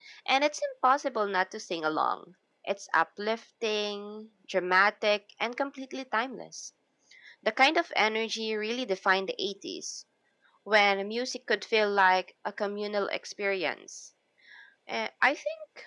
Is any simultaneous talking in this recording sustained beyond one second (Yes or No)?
No